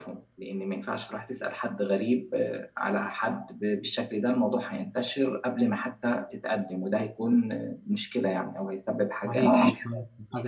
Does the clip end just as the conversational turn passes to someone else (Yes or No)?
Yes